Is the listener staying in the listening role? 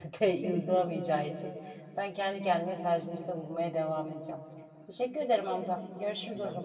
No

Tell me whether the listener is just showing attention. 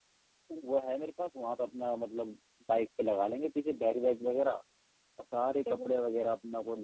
Yes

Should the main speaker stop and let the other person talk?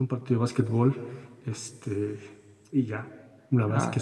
No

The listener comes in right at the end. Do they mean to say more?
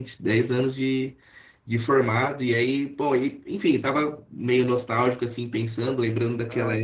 No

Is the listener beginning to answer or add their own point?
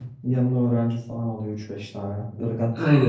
Yes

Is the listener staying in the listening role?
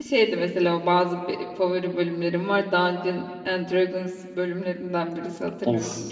No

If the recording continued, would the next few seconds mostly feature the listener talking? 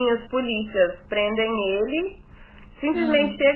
No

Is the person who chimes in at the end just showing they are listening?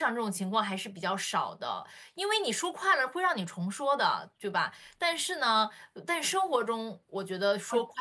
Yes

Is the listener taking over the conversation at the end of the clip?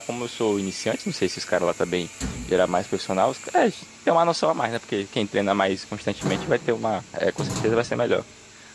No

